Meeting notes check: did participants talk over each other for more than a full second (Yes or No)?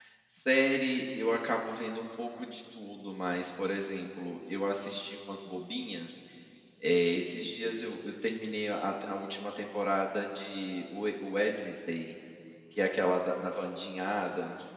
No